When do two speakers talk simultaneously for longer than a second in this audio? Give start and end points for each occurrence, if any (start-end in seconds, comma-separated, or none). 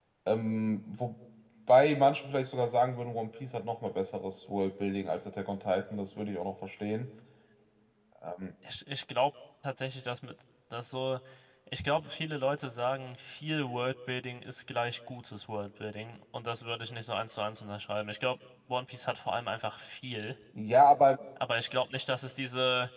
none